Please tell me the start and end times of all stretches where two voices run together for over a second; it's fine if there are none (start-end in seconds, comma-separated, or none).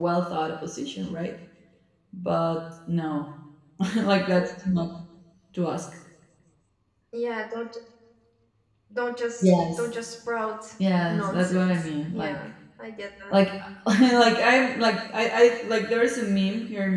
11.1-12.4